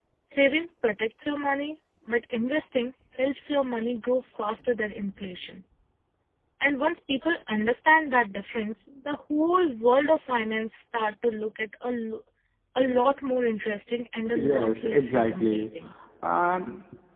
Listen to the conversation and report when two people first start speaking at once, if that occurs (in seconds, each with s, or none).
14.3 s